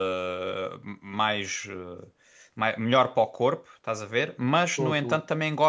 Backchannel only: Yes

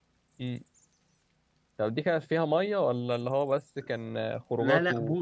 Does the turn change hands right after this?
Yes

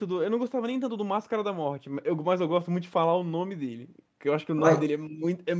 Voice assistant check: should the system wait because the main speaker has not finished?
Yes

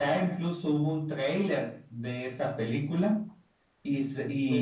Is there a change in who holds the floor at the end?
No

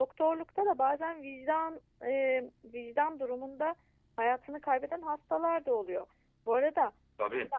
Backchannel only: Yes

